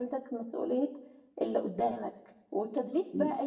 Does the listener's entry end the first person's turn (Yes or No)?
No